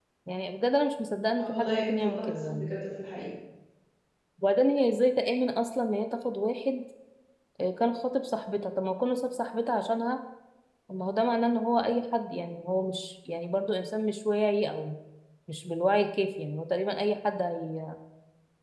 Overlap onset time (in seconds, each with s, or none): 1.4 s